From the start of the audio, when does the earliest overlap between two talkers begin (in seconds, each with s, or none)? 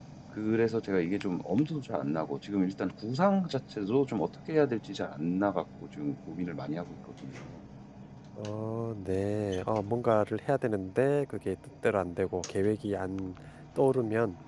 none